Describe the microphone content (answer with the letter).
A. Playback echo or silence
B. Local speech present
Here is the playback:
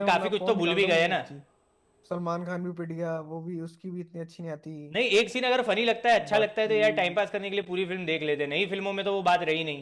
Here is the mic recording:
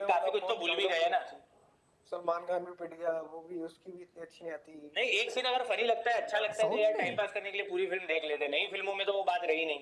B